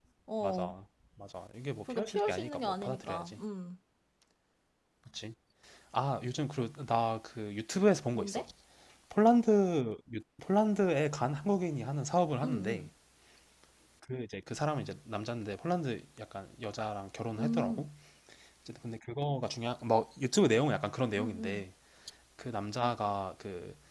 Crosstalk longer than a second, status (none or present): present